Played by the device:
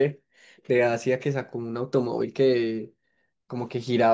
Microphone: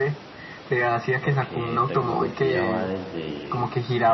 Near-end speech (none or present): present